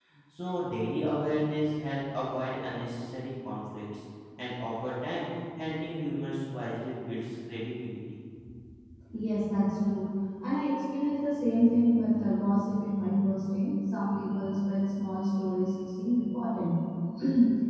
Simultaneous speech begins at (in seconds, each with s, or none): none